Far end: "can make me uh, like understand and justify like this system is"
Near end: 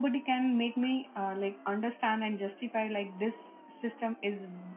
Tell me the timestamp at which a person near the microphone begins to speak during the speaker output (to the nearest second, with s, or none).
none